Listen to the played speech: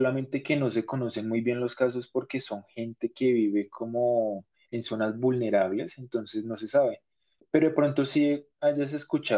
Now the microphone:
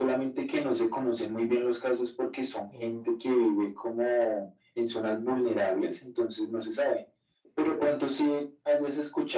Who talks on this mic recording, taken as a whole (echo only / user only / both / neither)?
both